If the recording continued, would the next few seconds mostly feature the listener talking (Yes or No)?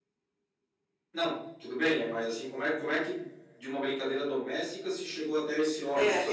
Yes